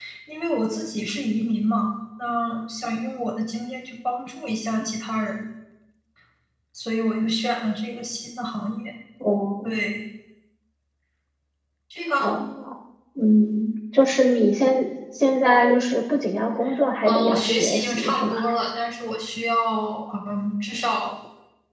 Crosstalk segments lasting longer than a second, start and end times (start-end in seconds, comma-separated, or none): 17.1-18.4